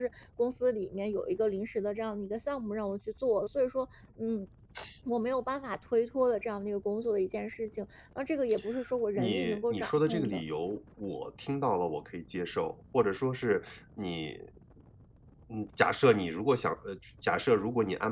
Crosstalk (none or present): present